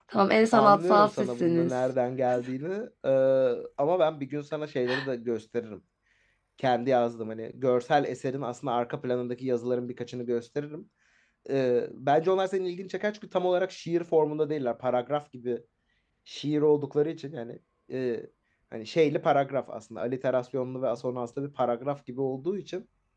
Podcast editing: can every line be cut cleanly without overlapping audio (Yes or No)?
No